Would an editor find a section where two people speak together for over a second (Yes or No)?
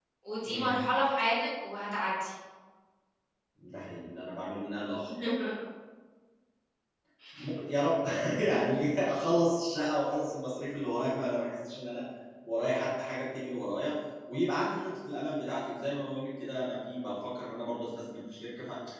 No